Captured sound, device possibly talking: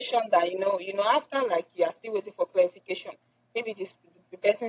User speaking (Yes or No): No